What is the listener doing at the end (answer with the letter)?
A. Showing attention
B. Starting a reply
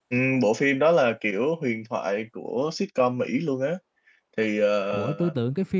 B